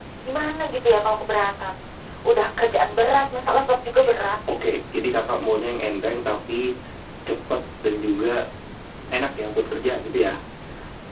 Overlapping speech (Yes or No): No